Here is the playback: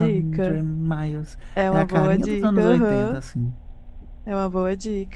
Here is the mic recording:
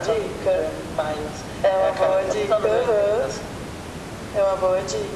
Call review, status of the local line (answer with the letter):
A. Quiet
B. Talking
A